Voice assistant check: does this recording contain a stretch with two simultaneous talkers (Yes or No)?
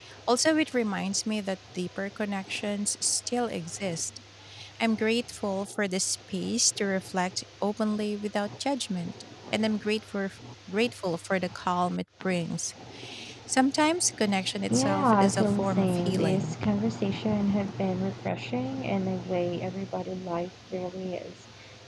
Yes